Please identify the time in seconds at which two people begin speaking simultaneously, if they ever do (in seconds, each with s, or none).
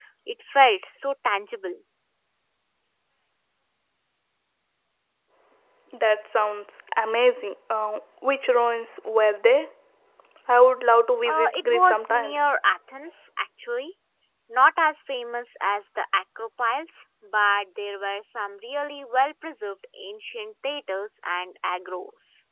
11.2 s